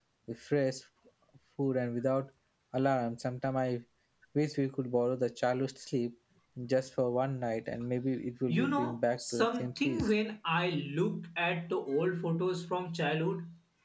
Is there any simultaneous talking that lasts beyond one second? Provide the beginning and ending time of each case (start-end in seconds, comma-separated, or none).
8.5-10.1